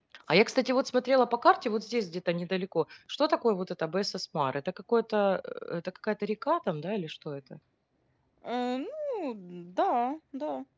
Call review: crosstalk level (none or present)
none